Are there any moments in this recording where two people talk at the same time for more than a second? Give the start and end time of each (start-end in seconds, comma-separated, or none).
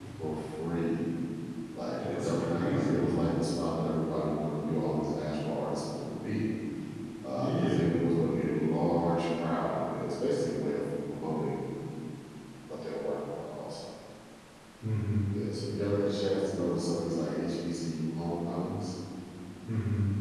2.0-3.2